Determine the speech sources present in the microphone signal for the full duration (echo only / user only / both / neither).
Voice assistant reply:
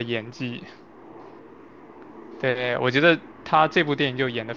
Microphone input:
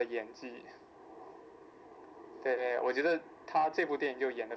echo only